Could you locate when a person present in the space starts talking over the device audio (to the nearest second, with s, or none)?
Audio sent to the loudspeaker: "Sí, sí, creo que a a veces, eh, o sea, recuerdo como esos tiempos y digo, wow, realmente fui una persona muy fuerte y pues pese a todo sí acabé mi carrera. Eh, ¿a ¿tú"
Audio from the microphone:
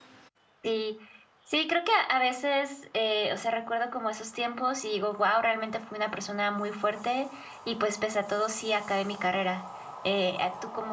none